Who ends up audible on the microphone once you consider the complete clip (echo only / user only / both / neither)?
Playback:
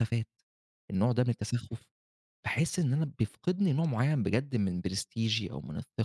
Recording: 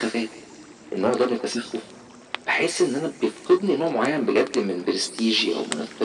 echo only